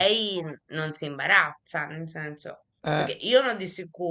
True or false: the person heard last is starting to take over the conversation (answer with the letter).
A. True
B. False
B